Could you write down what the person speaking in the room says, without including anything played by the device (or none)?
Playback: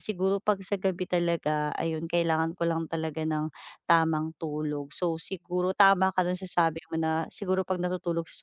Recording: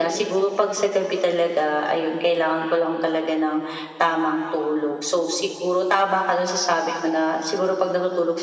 none